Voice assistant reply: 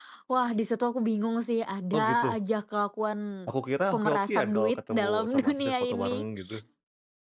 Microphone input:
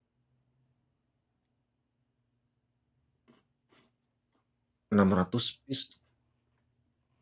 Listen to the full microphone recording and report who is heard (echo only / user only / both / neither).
user only